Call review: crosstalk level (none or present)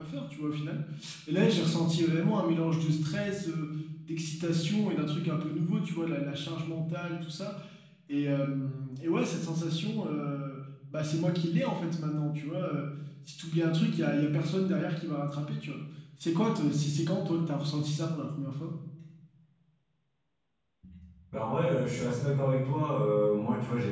none